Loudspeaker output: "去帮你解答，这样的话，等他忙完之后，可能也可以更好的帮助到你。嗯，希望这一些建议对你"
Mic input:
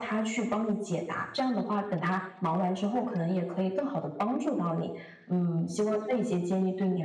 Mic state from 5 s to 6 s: echo only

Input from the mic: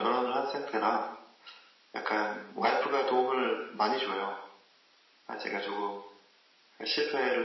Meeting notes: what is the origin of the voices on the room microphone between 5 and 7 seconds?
echo only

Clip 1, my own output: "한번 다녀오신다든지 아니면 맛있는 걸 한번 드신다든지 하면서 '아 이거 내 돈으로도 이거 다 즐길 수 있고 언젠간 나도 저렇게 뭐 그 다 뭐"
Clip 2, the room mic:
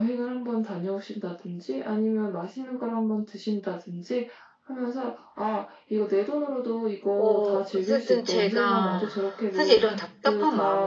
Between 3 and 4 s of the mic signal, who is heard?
echo only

